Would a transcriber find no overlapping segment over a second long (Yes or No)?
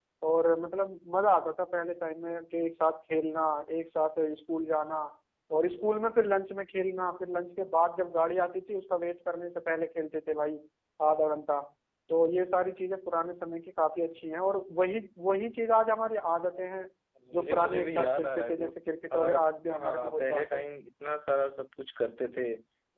No